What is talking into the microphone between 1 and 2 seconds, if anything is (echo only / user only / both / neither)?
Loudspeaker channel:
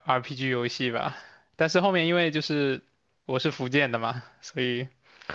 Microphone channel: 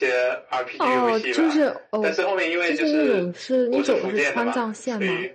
both